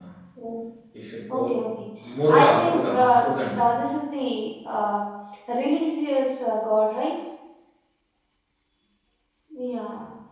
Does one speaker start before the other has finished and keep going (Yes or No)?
Yes